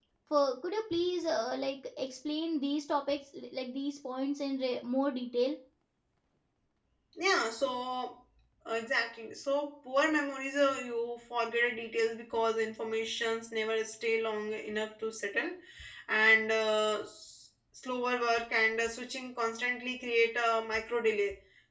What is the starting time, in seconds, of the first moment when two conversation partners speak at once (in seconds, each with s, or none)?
none